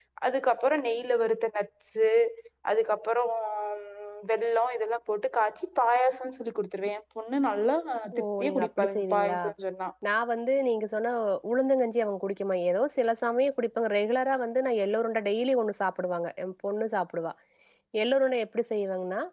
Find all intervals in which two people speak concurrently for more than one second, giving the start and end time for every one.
8.2-9.4

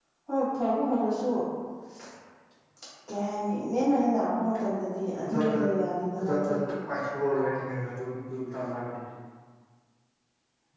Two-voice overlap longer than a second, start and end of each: none

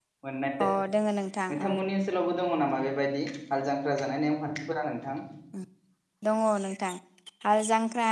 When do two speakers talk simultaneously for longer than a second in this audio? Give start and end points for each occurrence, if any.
none

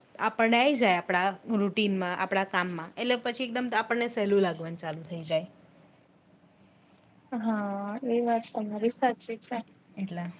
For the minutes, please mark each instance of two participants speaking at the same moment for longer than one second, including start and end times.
none

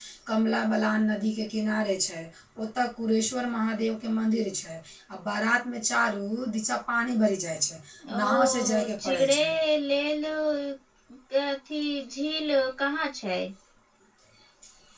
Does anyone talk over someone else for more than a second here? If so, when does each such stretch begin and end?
8.2-9.4

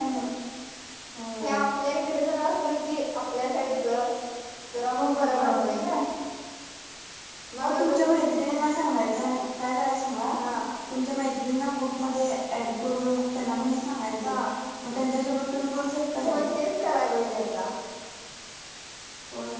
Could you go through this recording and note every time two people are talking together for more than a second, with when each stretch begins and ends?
none

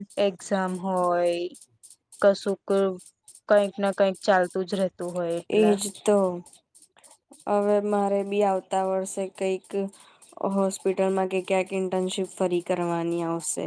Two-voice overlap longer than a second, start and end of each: none

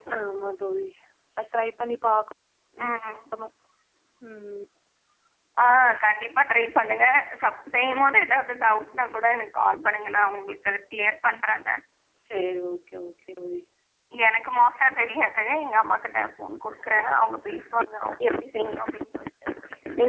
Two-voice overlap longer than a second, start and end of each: none

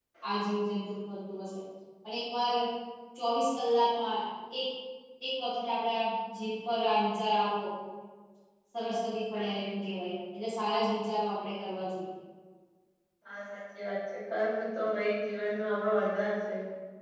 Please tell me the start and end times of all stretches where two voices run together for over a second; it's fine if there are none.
none

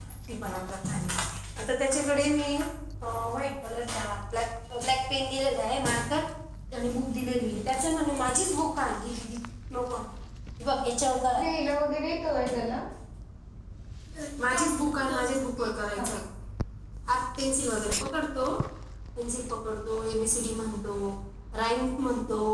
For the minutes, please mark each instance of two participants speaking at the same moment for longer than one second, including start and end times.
none

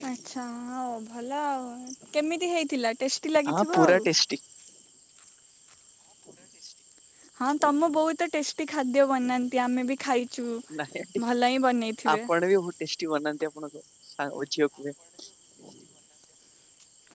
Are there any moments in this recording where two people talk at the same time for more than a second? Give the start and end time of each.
none

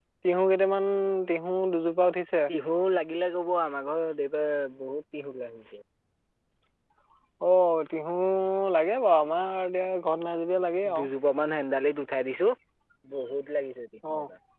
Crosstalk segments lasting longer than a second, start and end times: none

